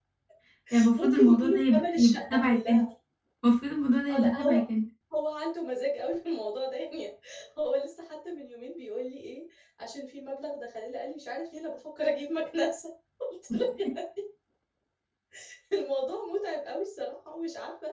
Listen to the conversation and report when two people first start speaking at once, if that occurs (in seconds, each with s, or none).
1.0 s